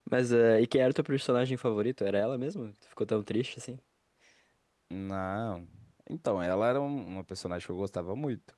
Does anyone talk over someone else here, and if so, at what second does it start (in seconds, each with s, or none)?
none